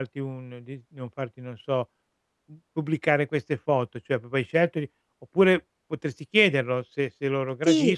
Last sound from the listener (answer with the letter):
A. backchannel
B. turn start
B